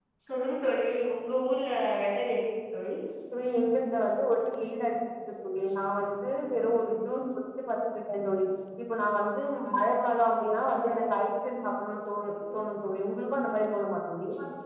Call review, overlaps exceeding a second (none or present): none